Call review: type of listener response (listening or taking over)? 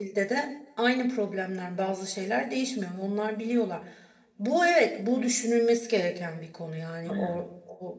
listening